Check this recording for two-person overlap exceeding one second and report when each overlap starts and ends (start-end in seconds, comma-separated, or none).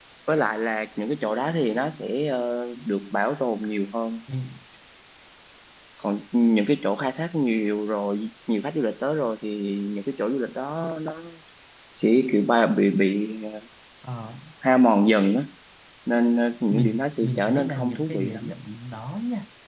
16.7-18.6